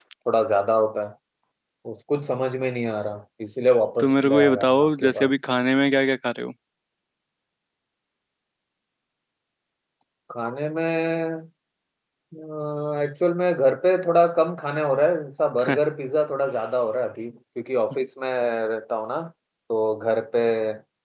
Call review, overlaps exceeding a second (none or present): present